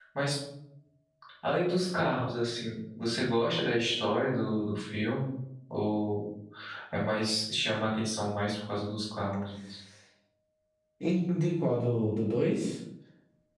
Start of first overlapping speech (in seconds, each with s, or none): none